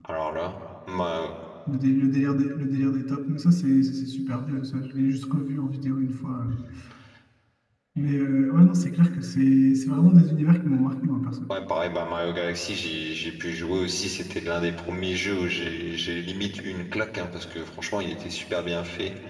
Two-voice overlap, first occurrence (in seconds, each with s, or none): none